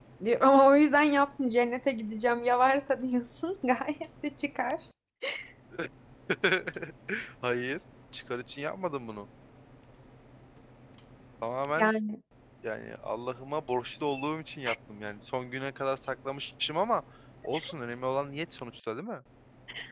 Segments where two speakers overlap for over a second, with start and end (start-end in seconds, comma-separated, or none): none